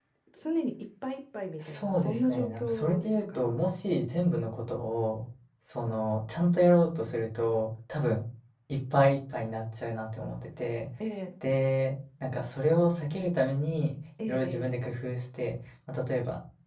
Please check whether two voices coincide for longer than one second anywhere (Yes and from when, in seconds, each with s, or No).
Yes, from 1.6 s